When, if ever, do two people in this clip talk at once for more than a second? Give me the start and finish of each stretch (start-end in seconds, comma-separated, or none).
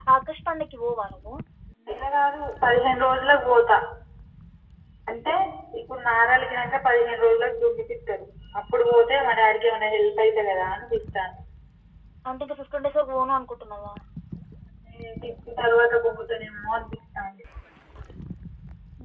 none